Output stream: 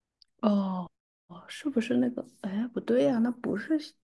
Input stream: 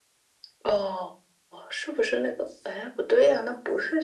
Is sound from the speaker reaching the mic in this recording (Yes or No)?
Yes